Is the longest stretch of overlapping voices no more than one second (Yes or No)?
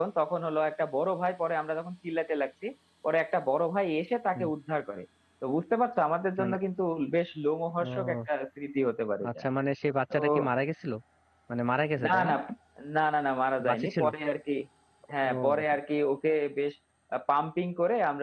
Yes